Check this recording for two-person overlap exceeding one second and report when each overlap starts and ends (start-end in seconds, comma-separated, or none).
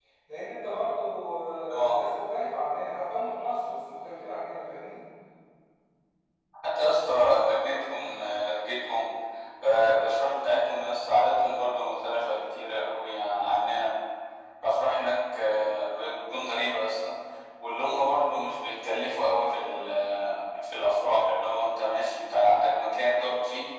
none